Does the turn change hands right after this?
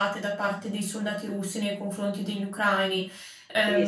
Yes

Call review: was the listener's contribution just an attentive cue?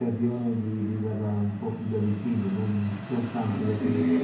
No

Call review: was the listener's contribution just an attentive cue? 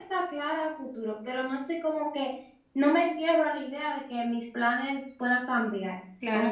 No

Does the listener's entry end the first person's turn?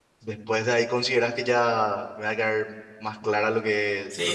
Yes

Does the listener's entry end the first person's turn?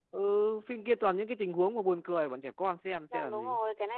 Yes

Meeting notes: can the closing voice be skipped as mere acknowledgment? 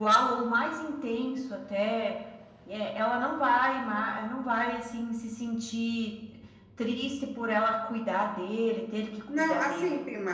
No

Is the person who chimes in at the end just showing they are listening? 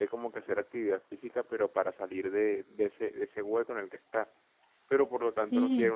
Yes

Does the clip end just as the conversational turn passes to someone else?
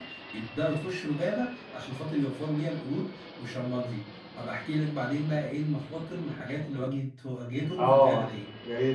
Yes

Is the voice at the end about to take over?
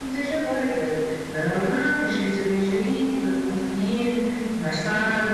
Yes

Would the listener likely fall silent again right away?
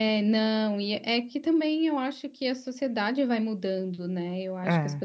Yes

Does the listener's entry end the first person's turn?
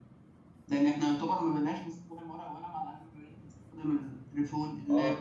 Yes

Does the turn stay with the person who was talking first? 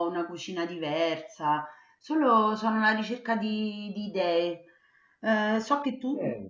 Yes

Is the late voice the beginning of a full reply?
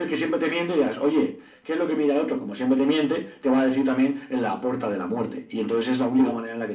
No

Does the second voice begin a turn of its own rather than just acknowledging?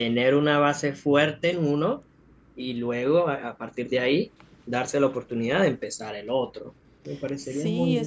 Yes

